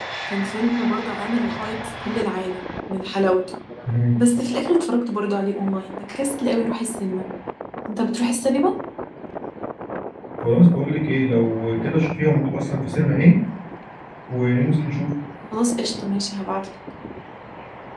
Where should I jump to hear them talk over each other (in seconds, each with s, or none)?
none